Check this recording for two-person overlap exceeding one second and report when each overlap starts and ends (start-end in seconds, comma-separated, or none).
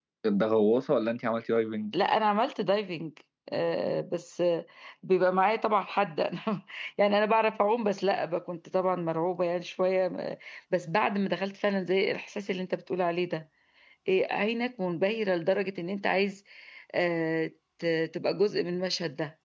none